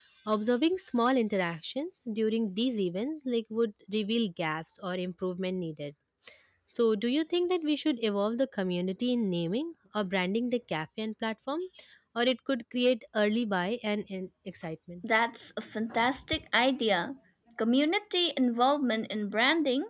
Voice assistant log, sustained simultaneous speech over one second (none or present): none